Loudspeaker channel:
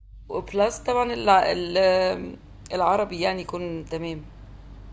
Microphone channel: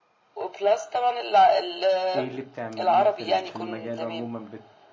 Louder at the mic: echo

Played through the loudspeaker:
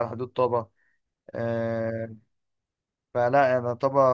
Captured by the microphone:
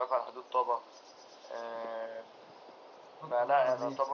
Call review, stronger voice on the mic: echo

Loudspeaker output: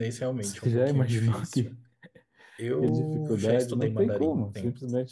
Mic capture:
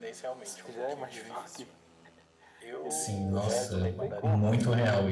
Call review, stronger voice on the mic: user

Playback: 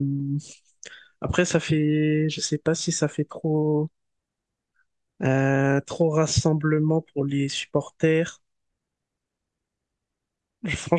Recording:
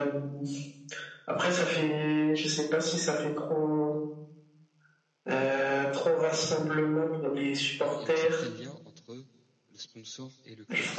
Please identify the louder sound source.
echo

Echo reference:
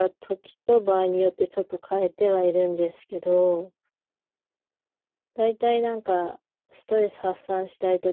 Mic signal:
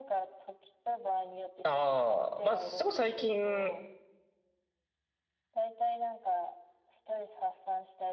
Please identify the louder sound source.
user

